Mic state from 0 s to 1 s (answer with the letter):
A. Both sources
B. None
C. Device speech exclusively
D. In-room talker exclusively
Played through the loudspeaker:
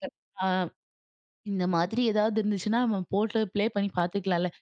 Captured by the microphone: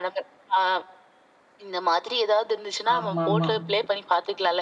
C